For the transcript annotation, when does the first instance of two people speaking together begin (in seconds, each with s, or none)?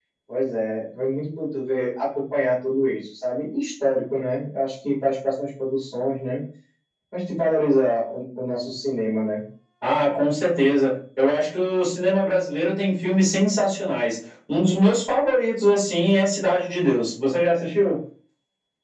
none